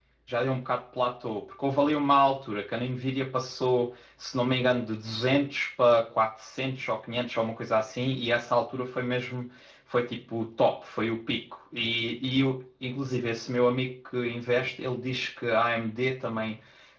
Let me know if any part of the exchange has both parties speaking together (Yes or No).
No